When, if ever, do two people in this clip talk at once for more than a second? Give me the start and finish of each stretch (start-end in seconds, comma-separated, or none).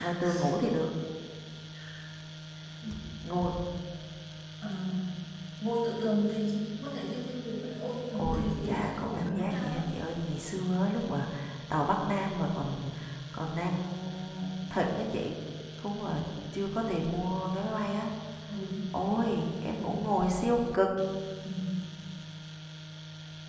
8.2-9.8